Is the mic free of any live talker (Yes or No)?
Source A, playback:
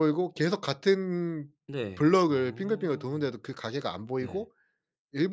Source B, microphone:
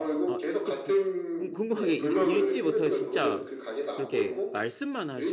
No